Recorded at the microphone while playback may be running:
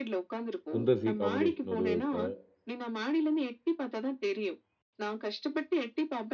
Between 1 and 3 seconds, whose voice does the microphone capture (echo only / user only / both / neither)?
both